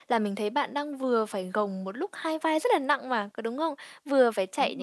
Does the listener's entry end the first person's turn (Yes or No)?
No